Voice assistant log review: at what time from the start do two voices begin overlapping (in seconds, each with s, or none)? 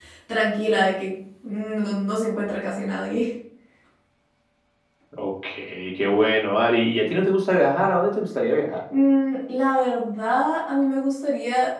none